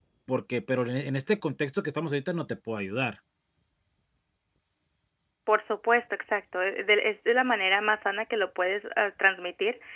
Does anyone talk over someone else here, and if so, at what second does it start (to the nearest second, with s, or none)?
none